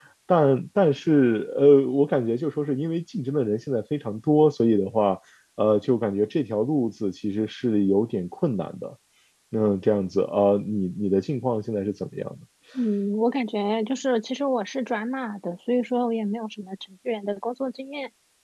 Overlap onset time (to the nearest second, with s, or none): none